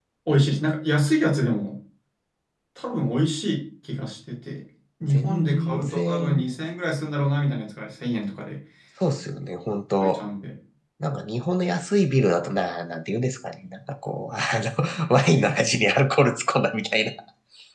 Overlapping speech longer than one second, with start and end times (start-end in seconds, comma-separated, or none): 5.0-6.5